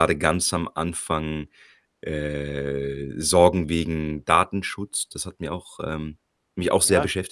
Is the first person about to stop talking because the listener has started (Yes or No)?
Yes